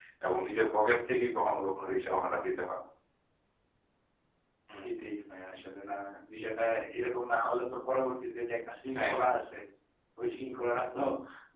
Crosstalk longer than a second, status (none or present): none